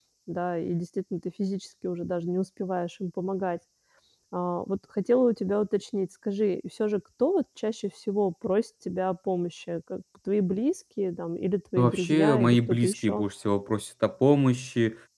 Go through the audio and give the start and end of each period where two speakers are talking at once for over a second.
11.8-13.3

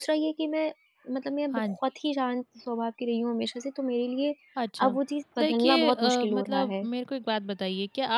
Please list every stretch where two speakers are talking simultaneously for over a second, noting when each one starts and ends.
5.4-6.9

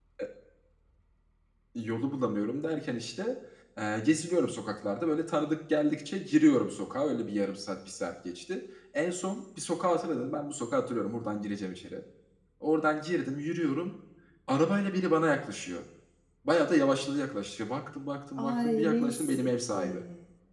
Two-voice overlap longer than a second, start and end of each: 18.4-20.0

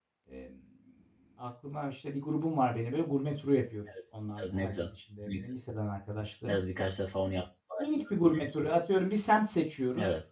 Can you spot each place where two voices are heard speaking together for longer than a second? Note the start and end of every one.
none

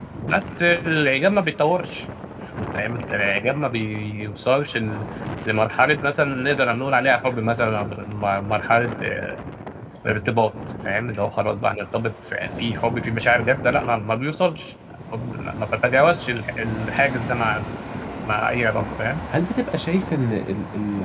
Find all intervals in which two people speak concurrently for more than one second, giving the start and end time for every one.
none

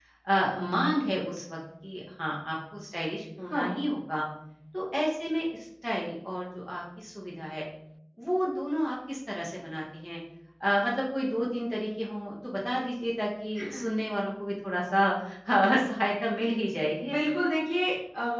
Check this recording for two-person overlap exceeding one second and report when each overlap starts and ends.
none

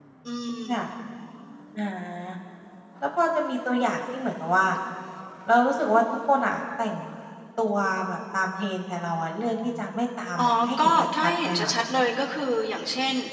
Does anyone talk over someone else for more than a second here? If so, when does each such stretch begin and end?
10.4-11.7

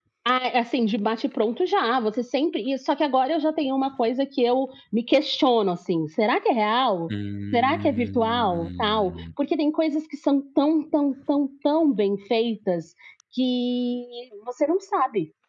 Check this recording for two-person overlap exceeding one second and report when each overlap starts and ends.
7.5-9.2

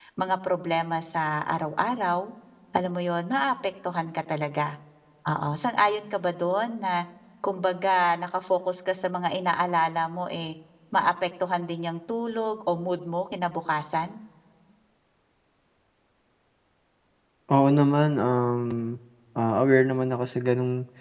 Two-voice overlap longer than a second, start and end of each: none

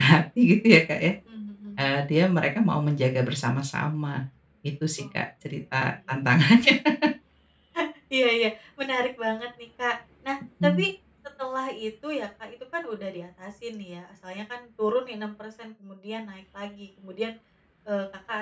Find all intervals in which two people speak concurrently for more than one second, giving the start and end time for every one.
none

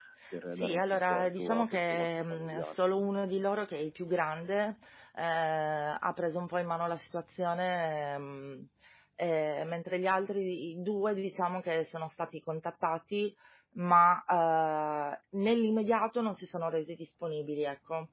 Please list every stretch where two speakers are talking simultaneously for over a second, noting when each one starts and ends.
0.6-2.8

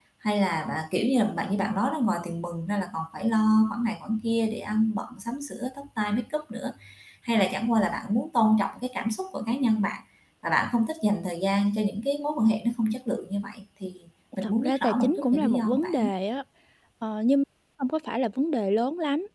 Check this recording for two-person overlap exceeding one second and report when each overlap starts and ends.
14.4-16.1

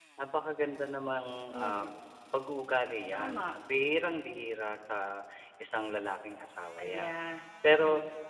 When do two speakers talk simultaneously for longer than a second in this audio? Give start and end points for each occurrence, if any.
none

